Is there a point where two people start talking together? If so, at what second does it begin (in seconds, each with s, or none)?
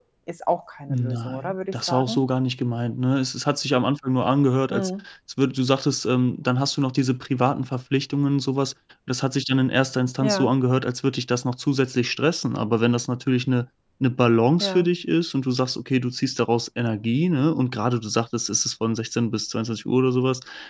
0.9 s